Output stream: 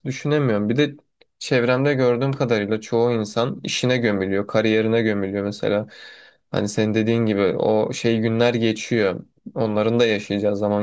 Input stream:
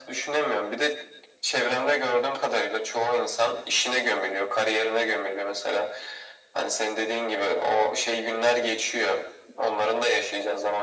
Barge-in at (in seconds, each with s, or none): none